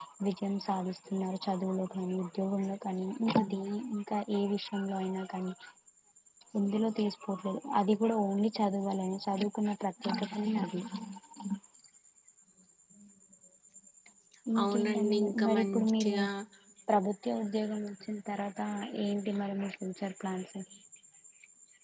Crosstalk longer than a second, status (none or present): present